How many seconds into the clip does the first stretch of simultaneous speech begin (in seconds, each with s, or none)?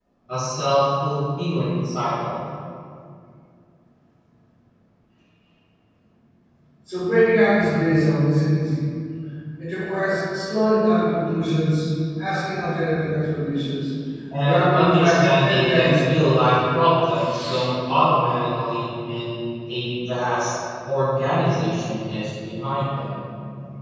14.4 s